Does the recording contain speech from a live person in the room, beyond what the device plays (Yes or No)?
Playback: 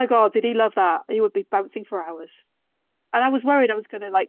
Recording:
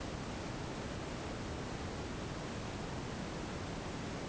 No